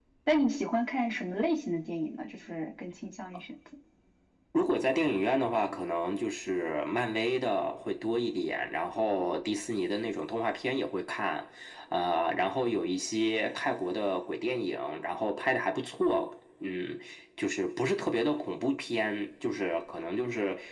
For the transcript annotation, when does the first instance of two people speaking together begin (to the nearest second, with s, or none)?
none